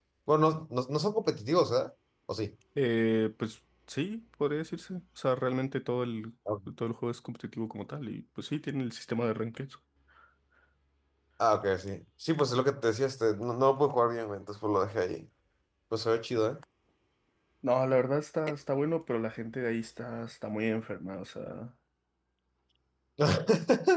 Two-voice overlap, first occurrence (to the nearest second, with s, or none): none